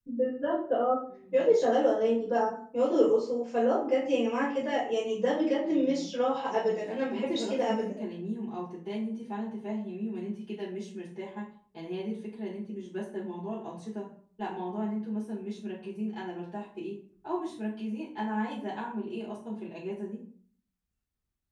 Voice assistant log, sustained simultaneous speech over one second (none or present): present